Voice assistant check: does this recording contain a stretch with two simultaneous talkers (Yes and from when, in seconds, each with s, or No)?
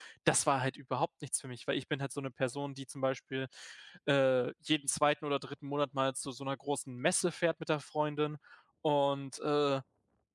No